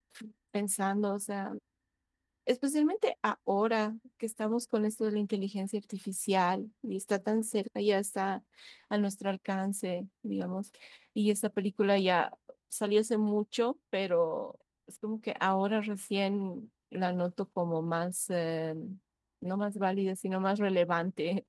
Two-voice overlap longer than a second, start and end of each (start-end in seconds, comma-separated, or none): none